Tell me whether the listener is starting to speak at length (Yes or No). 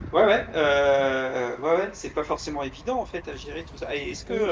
No